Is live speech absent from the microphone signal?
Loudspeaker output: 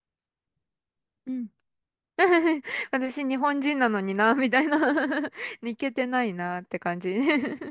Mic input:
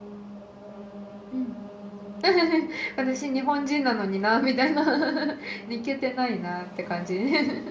Yes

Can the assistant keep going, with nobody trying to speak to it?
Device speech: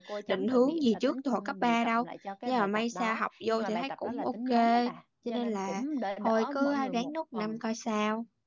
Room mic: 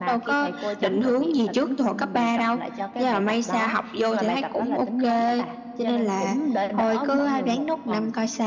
Yes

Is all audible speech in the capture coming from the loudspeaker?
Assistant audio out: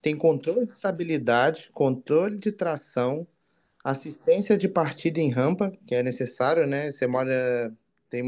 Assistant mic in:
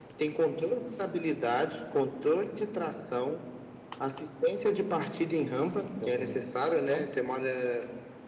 No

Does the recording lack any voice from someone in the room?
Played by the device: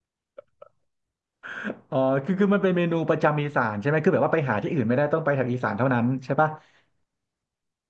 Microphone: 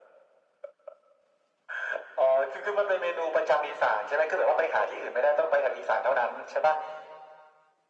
Yes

